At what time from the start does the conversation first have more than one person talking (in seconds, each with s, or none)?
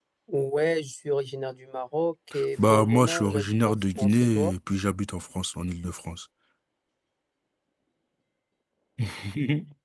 2.6 s